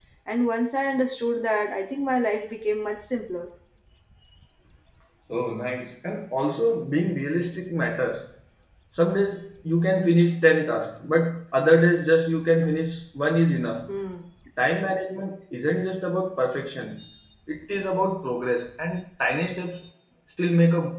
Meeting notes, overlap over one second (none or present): none